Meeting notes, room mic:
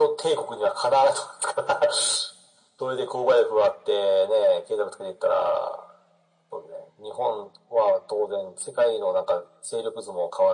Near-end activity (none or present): none